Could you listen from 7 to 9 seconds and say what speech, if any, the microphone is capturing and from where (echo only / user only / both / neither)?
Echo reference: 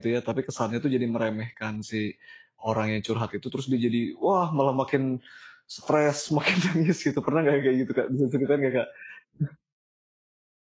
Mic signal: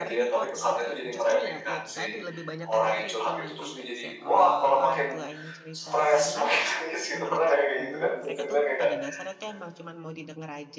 both